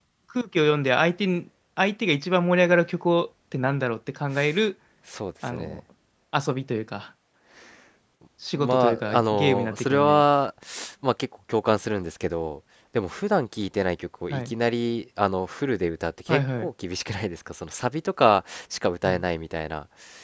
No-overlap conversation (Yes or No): No